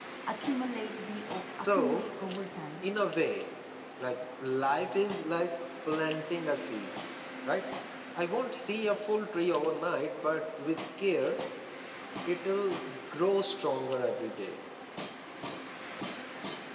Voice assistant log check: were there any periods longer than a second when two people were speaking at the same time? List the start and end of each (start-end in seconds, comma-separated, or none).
none